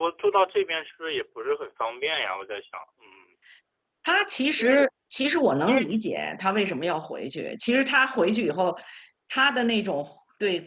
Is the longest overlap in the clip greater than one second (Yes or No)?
No